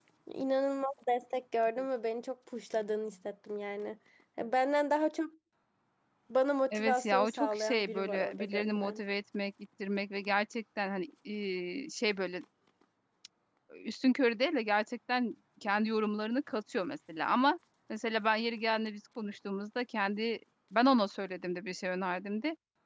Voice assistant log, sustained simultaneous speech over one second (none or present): present